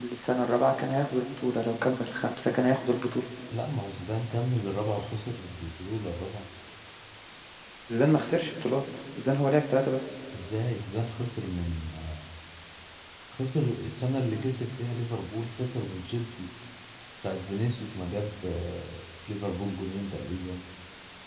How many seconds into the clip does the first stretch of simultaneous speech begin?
none

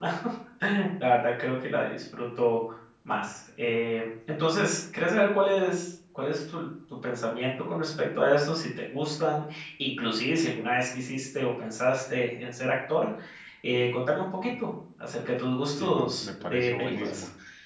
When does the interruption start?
16 s

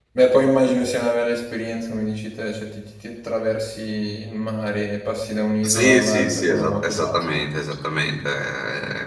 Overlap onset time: 6 s

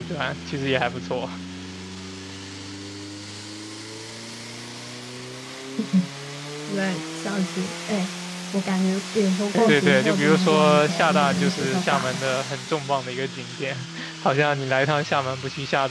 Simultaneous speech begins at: 10 s

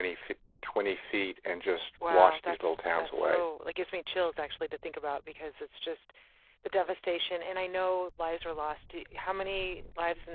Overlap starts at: 2 s

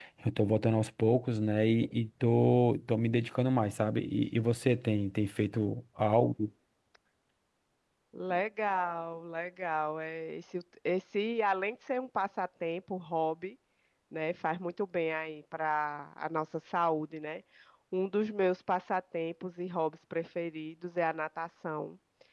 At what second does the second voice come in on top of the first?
none

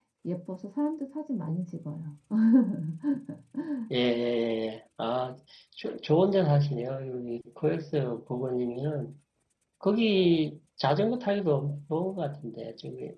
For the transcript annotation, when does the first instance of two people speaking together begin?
none

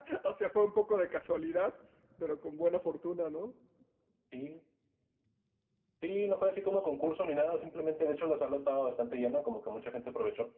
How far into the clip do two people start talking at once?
none

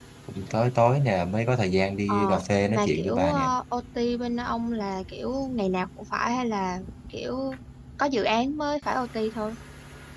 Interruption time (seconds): 2 s

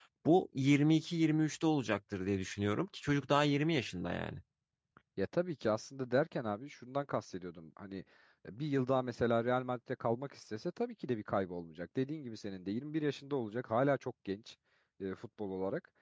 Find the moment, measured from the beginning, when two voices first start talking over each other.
none

